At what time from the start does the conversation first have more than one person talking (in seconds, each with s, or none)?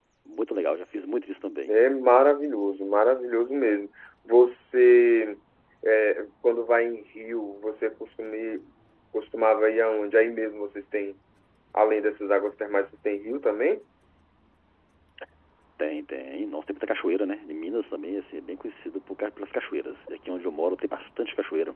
none